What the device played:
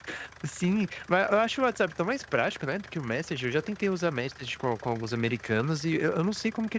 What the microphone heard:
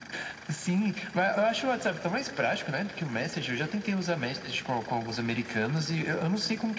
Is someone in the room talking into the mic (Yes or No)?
No